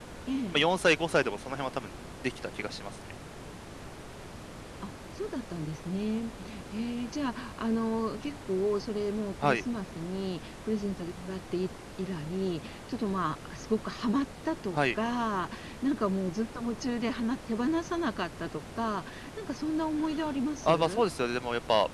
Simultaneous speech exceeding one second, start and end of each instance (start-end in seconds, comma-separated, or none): none